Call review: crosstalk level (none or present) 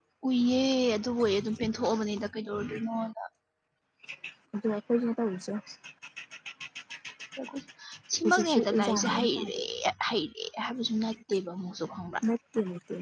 present